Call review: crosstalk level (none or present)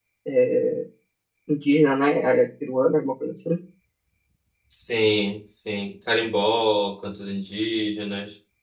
none